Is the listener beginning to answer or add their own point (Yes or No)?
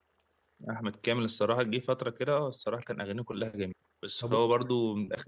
No